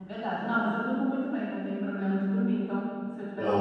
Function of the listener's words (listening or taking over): listening